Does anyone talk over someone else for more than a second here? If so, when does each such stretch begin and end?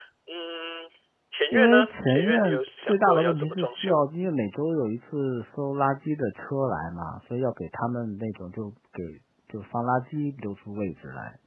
1.5-4.1

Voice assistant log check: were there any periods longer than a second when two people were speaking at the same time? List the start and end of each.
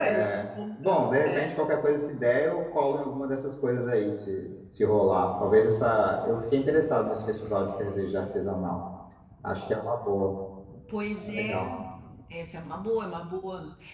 none

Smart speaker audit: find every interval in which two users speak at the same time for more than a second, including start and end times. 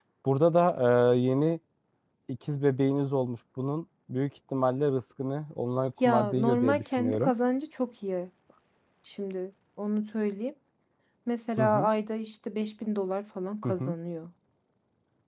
6.0-7.3

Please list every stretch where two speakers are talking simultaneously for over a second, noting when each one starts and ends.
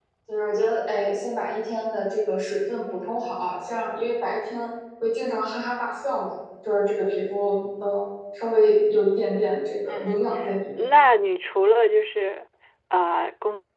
none

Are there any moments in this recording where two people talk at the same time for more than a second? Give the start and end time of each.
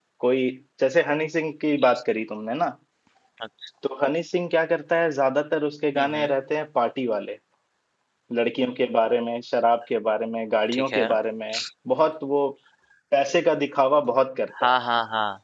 none

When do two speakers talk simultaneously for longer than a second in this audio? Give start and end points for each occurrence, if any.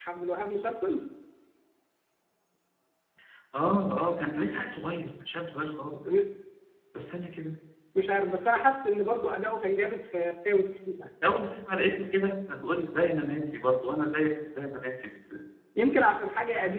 none

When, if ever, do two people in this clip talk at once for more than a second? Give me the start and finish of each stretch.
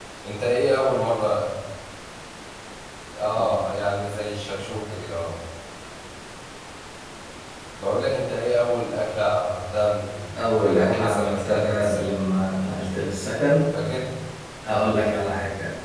10.6-12.1

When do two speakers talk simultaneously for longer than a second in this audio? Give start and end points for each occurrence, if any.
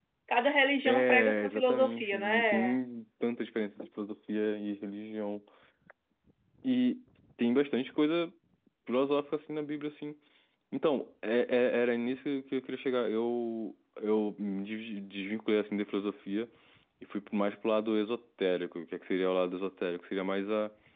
0.8-2.8

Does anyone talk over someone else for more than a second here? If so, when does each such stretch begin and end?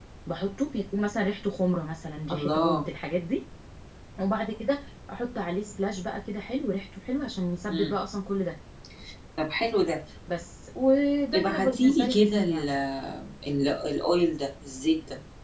11.3-12.7

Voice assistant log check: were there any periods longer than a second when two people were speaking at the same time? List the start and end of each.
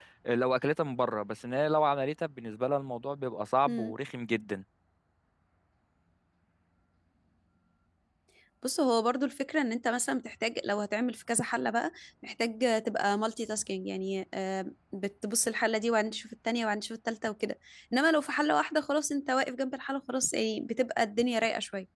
none

